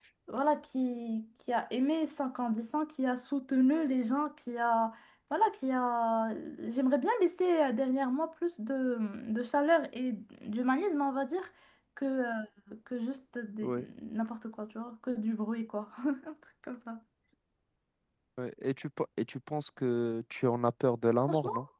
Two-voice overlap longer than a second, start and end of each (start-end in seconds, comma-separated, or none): none